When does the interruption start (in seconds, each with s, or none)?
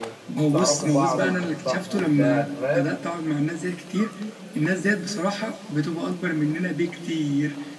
0.5 s